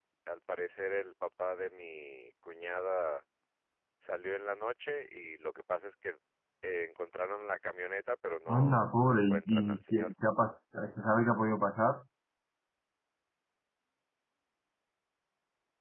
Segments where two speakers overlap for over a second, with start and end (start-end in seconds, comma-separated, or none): 8.5-10.1